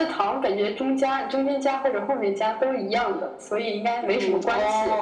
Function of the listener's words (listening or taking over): taking over